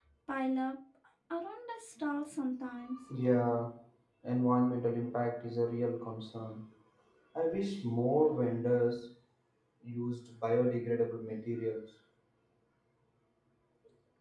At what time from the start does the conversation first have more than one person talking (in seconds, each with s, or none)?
none